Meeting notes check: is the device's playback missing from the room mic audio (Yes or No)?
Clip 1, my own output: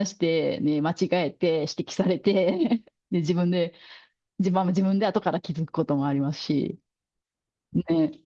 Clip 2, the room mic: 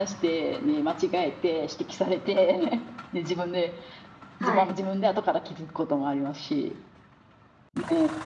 No